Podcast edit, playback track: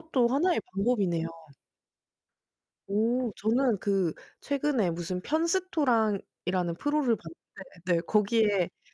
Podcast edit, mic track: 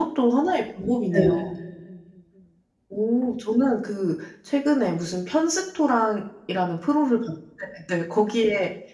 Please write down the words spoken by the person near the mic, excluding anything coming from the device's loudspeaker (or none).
네.